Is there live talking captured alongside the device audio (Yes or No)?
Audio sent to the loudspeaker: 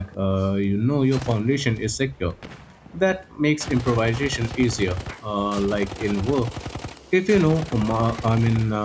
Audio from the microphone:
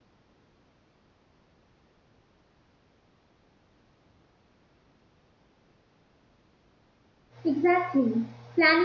Yes